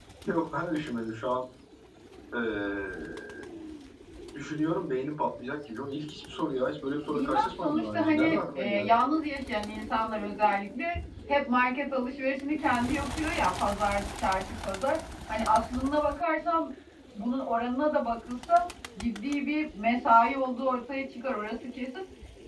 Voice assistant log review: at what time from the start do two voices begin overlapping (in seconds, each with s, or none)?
7.1 s